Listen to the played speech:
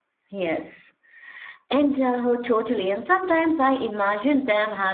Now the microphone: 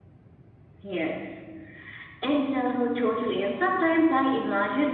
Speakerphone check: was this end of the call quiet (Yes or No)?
Yes